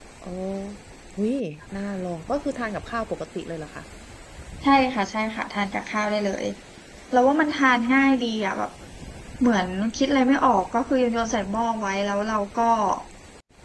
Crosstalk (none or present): none